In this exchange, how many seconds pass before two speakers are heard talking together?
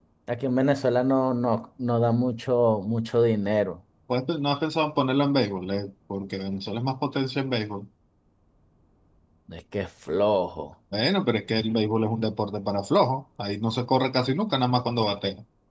none

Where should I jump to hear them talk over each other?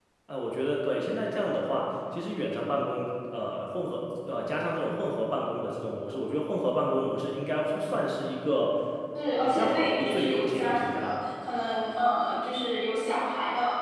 9 s

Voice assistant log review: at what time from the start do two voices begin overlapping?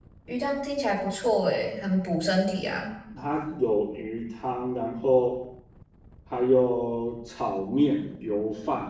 none

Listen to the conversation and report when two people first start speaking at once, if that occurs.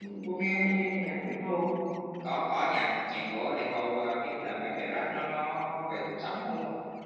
none

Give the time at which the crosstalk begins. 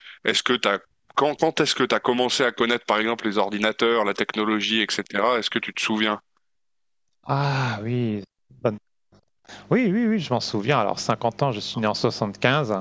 none

